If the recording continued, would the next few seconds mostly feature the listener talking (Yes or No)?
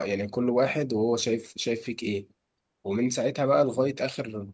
No